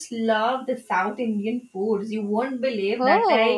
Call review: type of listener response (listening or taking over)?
listening